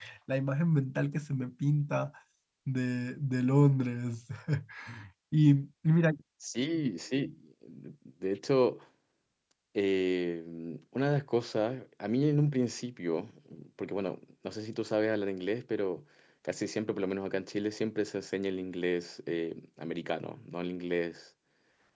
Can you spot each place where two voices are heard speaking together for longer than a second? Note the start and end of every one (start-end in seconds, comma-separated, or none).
none